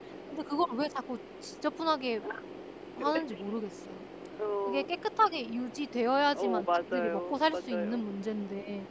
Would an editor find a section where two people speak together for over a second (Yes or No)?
Yes